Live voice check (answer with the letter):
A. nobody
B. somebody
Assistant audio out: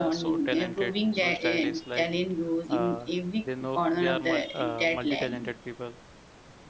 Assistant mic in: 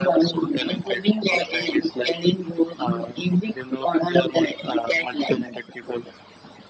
A